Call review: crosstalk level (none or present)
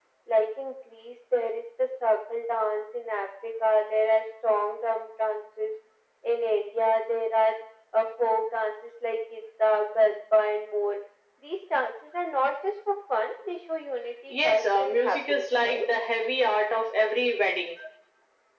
present